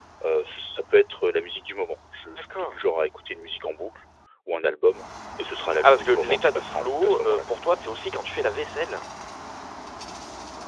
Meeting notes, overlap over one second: present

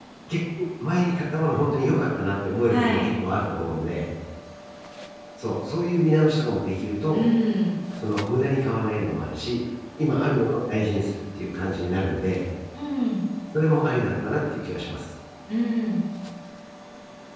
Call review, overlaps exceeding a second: none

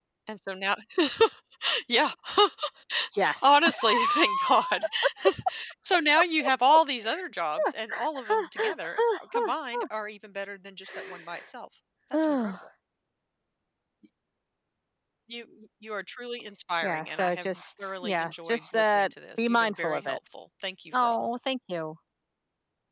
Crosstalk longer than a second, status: present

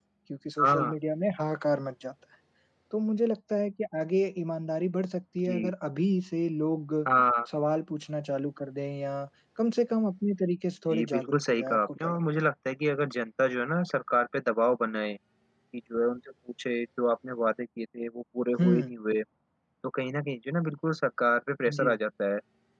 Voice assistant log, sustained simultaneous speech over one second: present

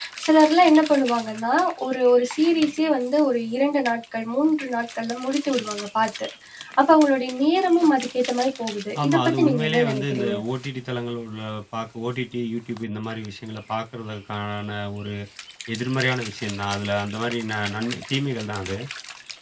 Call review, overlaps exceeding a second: present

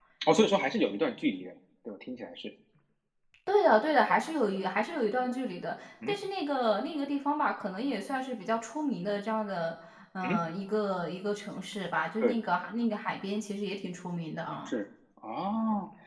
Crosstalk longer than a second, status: none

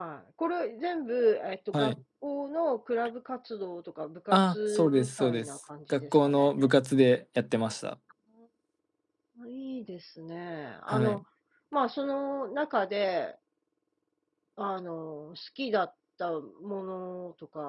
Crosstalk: present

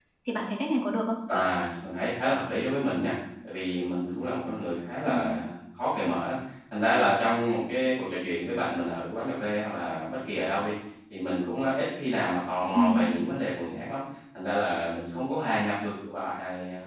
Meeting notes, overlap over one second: none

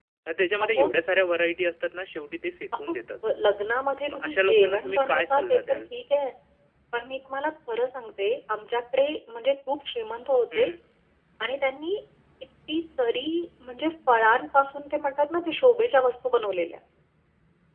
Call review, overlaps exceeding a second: present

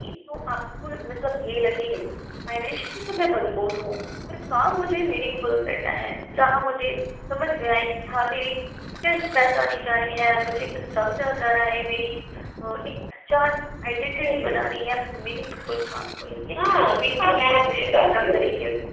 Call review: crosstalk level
present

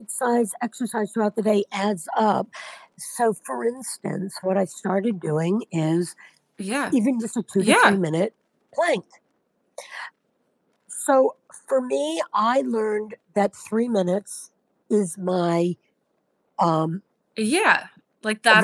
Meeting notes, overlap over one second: none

